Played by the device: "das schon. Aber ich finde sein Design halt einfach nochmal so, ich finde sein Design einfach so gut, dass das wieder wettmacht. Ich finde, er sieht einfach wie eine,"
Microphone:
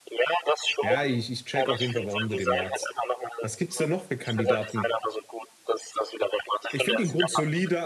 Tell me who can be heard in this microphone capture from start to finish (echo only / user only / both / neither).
both